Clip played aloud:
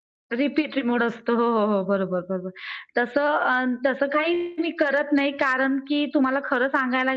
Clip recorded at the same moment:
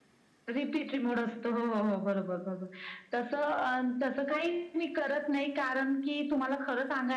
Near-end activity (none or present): none